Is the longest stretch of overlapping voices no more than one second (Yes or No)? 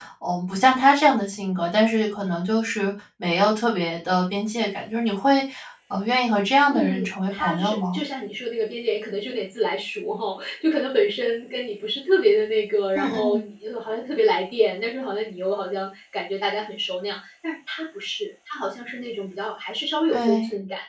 No